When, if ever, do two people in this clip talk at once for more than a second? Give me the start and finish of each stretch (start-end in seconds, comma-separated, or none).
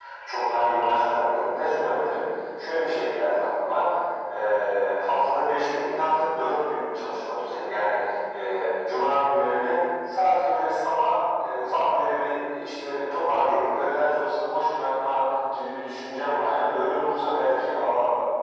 none